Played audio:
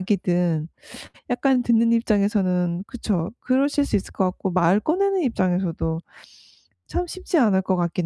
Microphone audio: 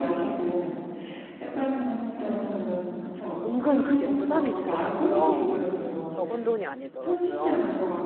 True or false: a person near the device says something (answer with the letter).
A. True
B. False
A